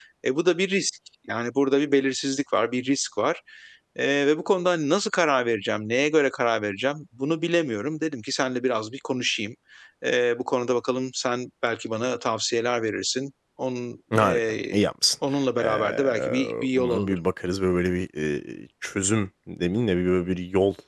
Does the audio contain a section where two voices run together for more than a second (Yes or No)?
Yes